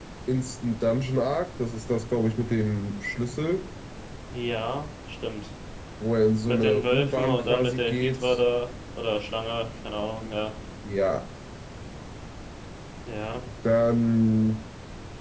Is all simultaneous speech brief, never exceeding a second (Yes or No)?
No